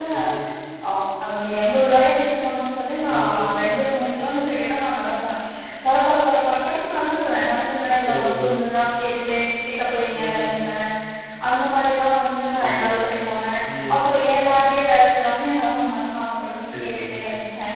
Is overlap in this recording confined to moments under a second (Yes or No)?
Yes